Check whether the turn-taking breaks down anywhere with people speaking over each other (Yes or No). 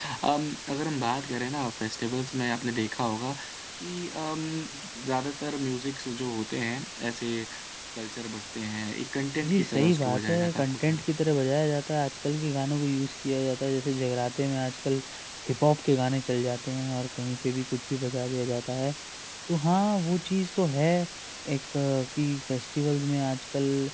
Yes